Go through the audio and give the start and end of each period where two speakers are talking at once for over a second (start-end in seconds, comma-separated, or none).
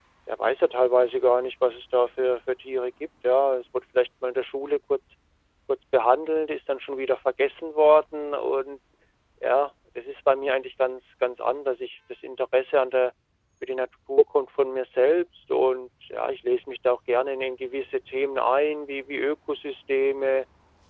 none